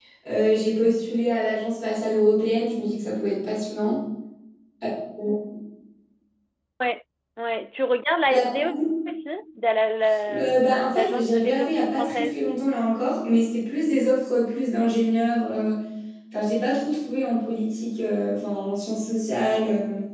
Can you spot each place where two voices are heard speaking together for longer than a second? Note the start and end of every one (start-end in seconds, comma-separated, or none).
10.9-12.4